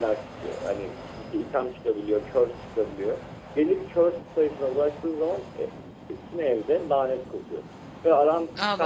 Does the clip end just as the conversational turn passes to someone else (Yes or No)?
No